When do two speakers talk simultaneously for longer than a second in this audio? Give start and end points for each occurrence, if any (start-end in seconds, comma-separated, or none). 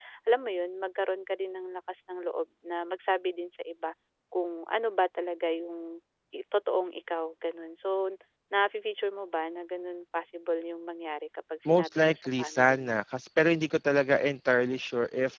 11.7-13.0